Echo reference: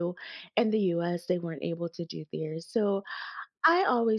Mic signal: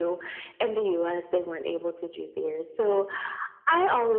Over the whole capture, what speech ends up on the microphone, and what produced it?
echo only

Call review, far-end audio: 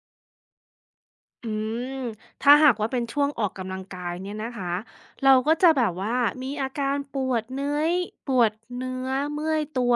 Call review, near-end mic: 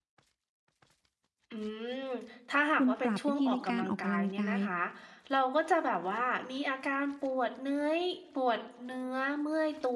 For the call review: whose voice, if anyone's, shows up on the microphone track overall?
both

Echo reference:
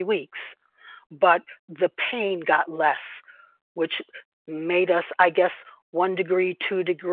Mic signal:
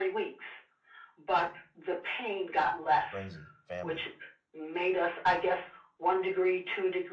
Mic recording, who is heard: both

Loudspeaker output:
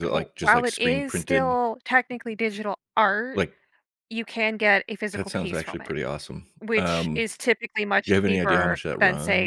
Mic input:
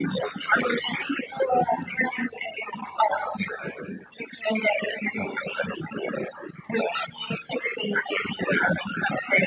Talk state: echo only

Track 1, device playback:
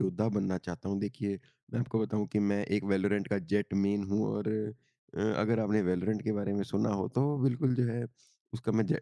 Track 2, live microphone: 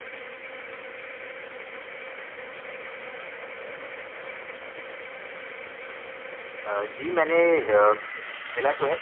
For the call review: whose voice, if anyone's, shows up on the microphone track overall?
user only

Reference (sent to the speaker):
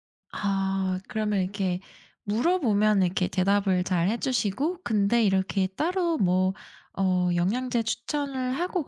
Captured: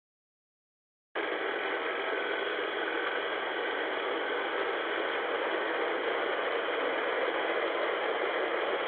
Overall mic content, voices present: neither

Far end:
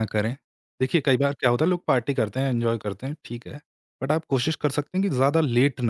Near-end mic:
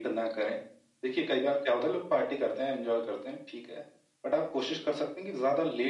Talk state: echo only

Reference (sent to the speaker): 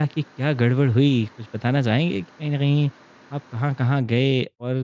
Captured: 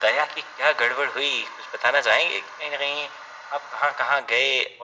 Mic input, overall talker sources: echo only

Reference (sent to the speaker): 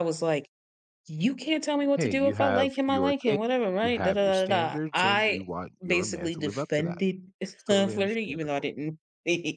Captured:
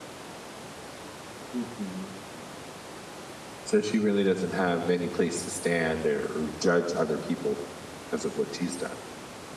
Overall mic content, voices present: user only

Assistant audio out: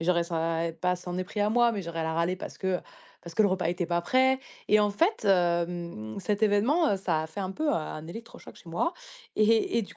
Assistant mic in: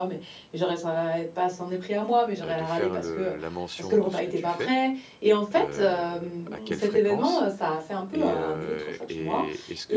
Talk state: both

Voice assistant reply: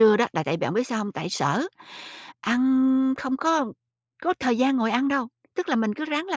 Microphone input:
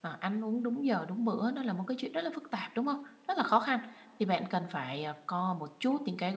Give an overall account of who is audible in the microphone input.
user only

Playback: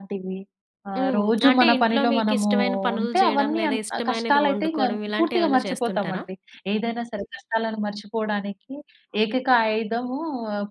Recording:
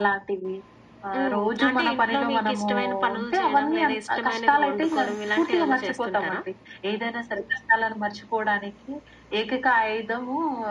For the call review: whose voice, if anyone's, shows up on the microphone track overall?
echo only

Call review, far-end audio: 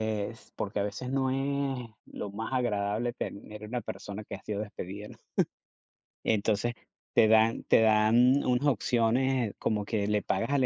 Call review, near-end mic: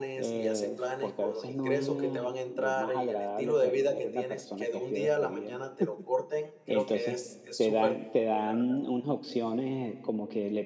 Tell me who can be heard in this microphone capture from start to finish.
both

